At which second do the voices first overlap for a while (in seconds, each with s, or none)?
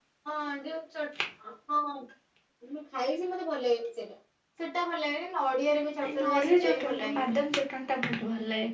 6.0 s